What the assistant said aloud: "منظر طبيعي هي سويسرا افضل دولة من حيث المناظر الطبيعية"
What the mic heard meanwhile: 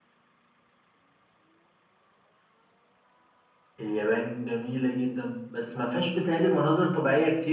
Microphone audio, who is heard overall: user only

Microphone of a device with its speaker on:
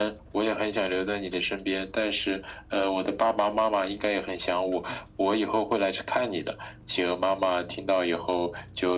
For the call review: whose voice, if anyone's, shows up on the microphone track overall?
echo only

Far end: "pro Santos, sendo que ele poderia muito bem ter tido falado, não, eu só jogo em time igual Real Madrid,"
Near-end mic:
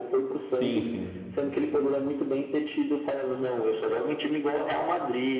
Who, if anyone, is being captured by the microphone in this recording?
both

